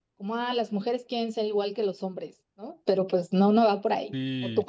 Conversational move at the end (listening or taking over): taking over